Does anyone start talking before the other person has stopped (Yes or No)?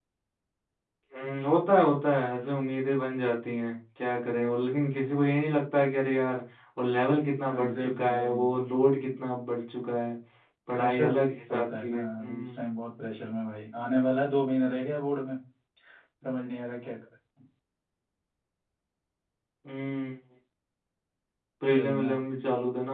Yes